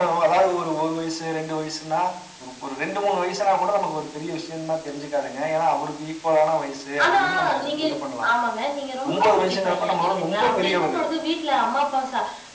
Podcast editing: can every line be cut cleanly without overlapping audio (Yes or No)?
No